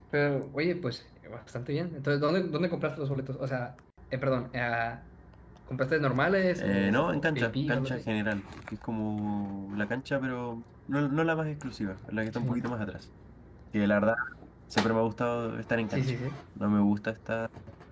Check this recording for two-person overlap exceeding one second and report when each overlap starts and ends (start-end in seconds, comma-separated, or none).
6.6-8.1